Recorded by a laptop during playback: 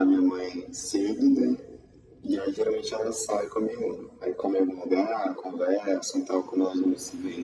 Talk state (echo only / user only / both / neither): echo only